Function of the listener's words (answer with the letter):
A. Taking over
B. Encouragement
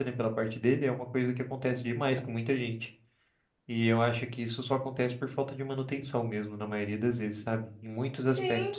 A